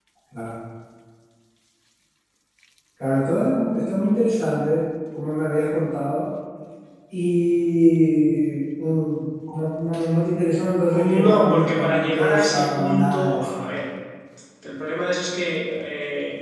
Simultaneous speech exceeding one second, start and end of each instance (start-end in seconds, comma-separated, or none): 10.9-13.7